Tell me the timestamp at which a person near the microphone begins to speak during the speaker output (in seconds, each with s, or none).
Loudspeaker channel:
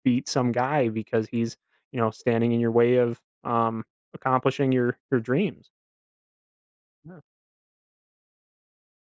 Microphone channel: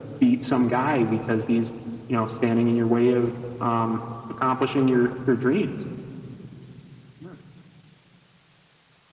none